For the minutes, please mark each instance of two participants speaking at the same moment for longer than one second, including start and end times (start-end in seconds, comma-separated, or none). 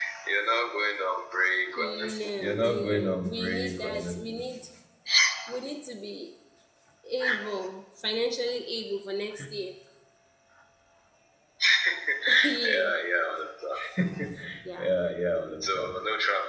2.4-4.5